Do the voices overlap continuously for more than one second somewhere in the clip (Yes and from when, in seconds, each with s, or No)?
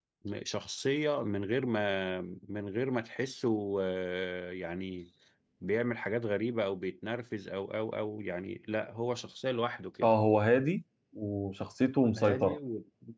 No